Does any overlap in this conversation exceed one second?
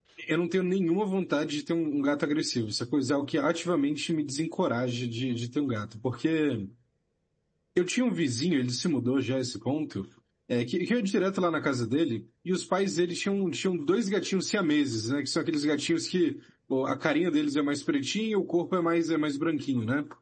No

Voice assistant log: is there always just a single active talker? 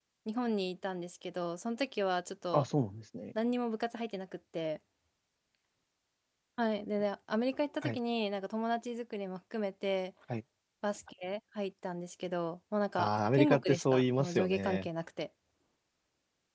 No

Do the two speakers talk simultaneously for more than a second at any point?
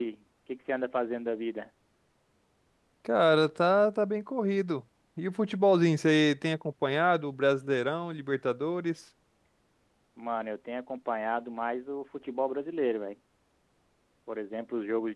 No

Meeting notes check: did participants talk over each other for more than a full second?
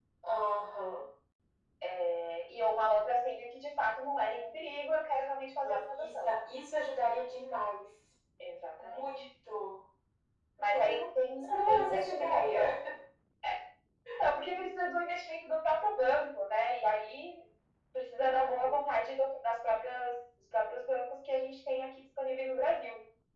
Yes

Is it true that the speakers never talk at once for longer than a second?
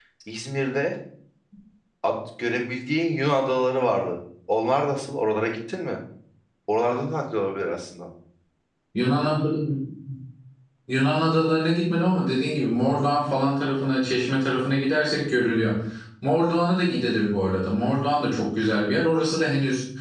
Yes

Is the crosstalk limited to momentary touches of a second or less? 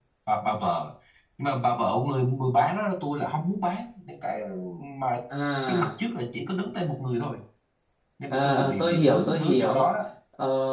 No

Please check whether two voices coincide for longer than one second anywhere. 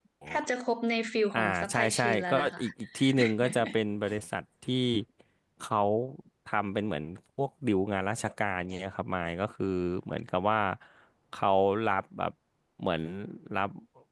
Yes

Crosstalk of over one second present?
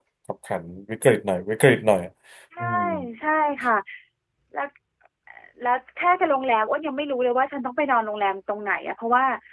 No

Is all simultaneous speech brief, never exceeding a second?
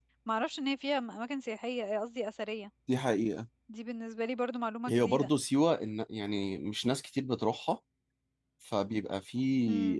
Yes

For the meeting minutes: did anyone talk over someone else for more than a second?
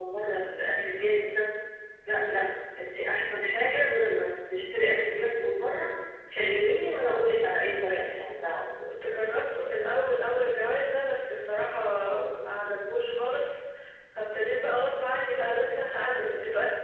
No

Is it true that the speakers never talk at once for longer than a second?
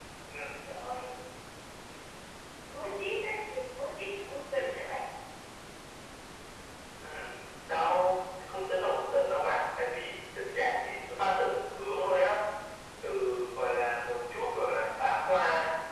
Yes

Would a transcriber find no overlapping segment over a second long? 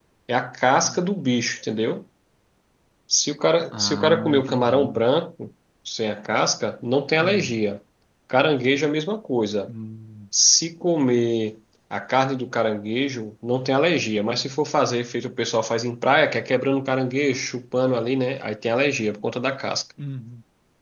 No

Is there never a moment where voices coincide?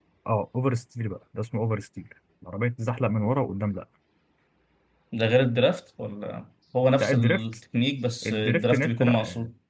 No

